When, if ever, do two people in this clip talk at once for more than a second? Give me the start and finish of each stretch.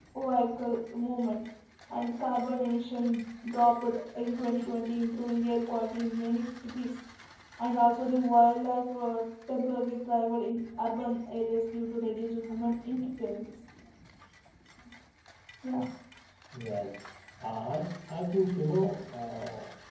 none

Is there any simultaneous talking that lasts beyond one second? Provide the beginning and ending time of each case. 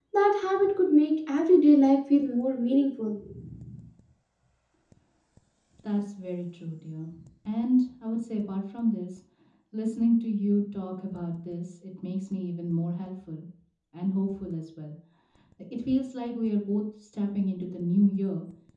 none

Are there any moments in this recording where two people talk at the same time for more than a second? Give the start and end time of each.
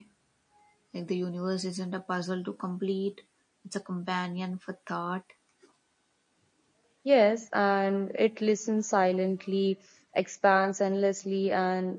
none

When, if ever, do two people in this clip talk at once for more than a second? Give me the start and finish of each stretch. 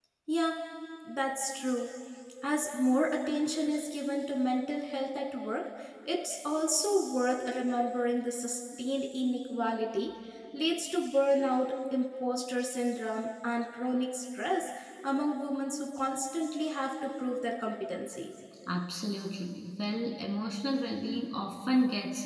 none

